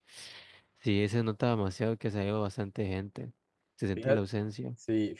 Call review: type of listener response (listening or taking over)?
taking over